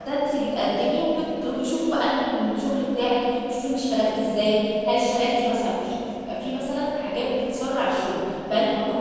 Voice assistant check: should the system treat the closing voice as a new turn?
No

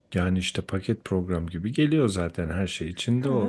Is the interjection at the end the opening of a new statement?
Yes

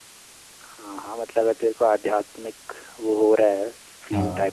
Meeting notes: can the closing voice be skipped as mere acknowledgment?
Yes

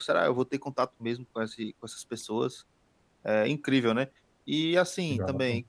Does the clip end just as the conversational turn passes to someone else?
No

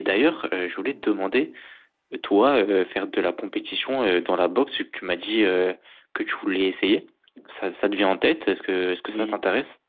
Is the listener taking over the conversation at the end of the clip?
Yes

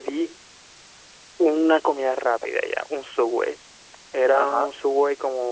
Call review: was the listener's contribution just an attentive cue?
Yes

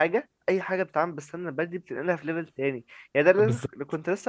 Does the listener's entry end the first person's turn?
No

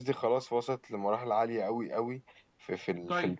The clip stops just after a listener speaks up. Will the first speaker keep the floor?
No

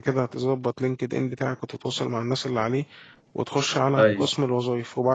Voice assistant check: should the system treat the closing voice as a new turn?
No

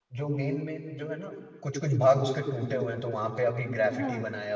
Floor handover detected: No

